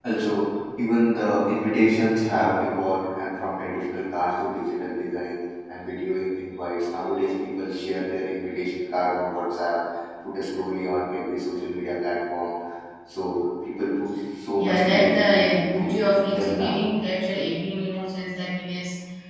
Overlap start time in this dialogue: 14.6 s

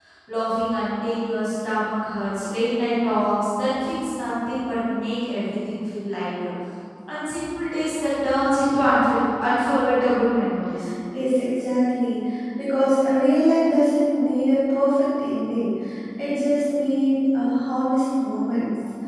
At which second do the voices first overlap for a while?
none

